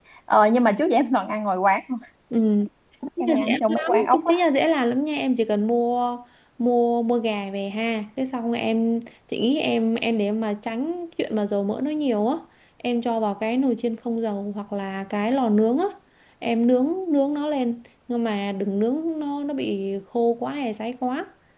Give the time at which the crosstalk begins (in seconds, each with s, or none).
3.2 s